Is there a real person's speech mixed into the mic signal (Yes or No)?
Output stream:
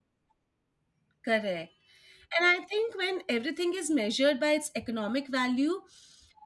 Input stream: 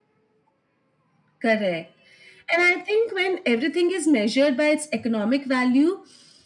No